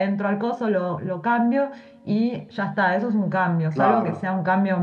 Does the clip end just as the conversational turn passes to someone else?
No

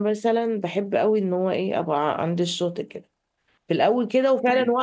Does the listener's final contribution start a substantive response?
No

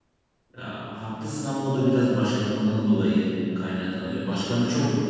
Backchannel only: Yes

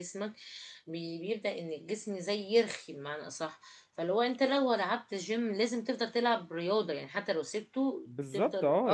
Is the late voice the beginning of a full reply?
Yes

